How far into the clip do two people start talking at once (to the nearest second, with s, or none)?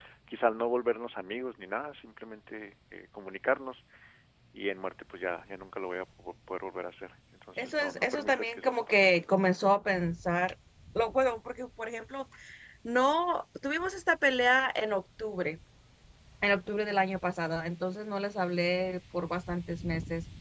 8 s